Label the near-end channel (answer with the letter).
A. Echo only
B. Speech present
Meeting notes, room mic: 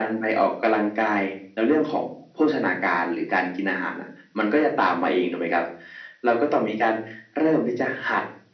A